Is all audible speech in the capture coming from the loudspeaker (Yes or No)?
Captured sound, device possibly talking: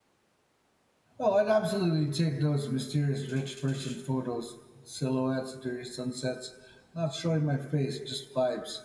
No